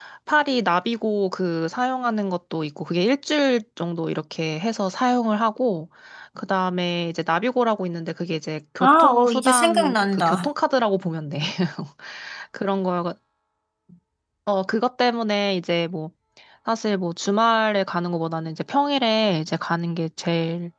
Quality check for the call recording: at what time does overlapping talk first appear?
8.8 s

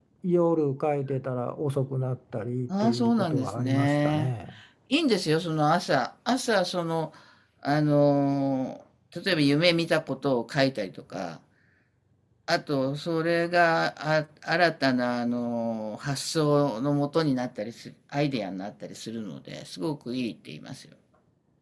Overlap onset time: 2.7 s

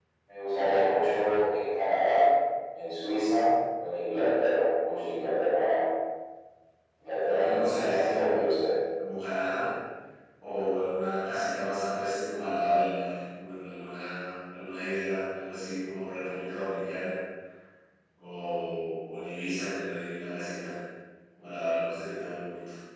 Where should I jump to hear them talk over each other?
7.3 s

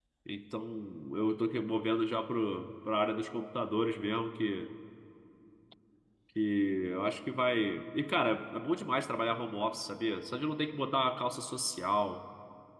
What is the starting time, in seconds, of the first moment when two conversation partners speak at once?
none

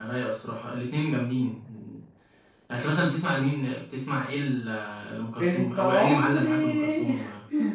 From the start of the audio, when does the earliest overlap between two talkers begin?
5.4 s

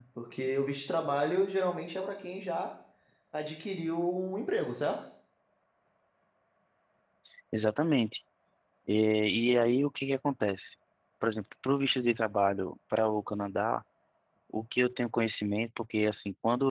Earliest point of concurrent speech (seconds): none

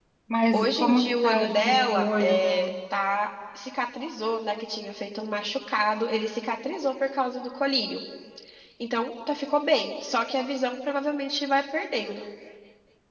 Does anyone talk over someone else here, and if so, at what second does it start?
0.5 s

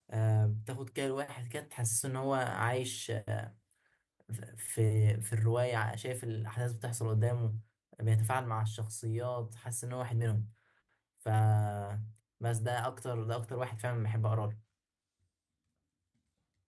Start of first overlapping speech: none

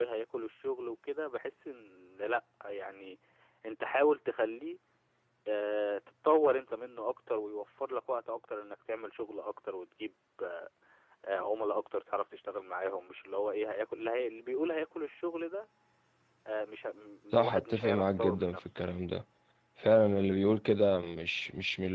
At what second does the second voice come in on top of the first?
17.3 s

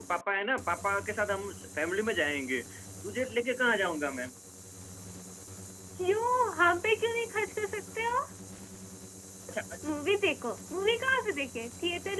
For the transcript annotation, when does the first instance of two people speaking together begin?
none

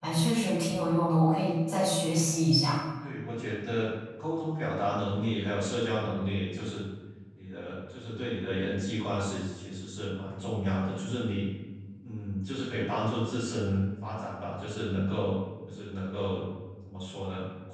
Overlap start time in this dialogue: none

